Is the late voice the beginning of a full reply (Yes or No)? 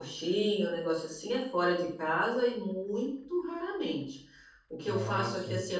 No